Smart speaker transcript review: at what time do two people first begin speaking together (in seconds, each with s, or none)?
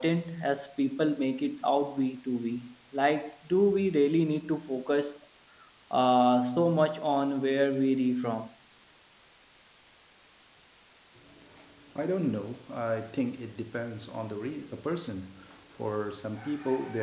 none